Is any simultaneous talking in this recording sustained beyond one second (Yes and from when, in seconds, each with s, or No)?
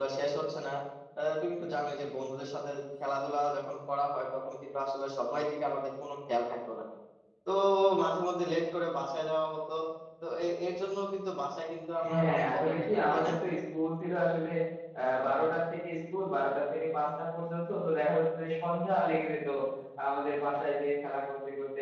Yes, from 12.0 s